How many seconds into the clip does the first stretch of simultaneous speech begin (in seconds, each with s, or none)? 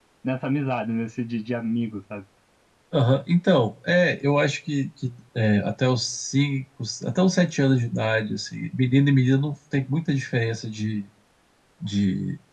none